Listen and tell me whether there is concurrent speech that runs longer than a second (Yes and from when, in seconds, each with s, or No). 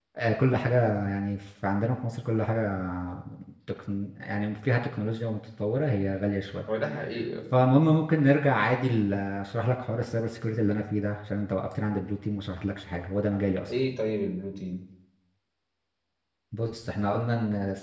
No